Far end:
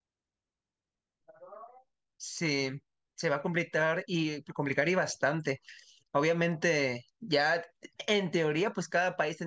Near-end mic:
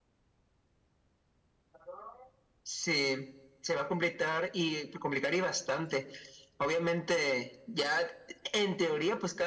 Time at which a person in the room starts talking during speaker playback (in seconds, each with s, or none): none